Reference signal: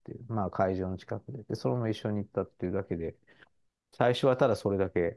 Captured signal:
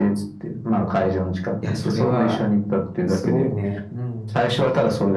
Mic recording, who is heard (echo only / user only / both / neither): both